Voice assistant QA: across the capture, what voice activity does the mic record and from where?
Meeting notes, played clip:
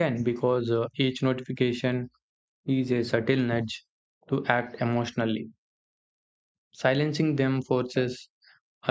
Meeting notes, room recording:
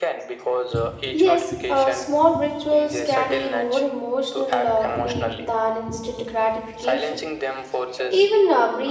both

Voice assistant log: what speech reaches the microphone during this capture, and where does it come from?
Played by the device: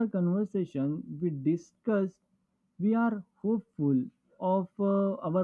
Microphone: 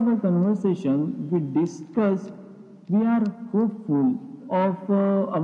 echo only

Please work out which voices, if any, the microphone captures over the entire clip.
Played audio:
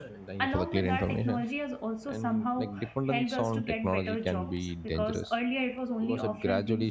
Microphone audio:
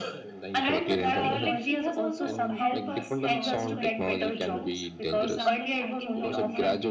both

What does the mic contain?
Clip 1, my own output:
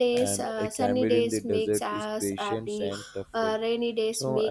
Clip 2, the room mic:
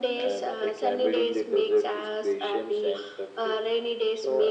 echo only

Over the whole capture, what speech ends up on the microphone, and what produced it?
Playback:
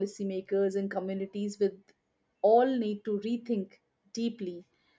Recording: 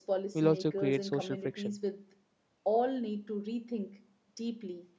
both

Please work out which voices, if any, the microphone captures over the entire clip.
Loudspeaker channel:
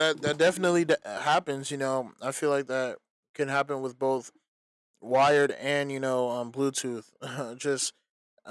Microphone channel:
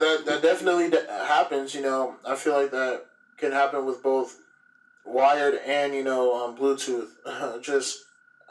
echo only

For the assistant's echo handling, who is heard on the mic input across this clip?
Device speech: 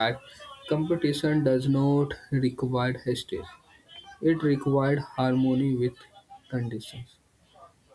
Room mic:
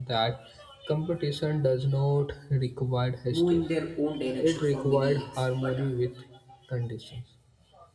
both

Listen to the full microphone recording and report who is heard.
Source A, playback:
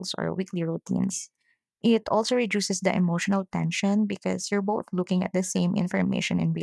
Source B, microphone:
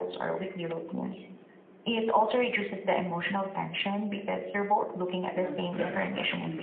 both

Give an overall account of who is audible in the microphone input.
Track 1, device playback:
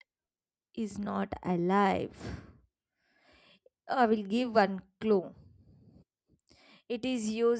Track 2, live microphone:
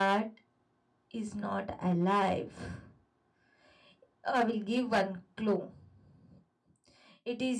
echo only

